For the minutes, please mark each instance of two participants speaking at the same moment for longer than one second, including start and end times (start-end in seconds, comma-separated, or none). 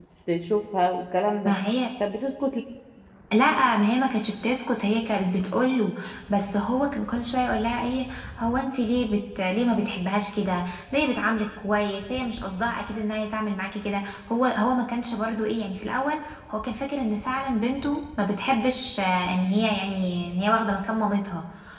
none